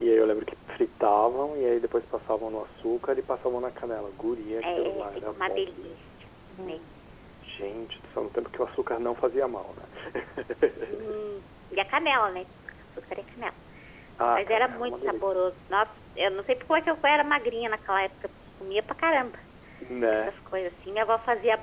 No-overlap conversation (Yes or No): No